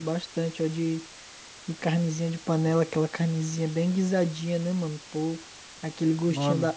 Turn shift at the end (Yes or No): No